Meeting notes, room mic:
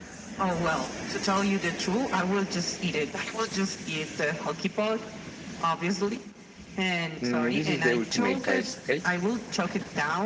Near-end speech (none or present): present